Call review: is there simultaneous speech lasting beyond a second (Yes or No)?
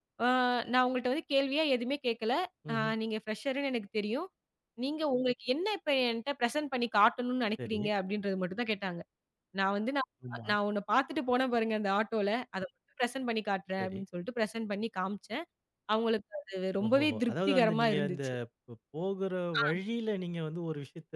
Yes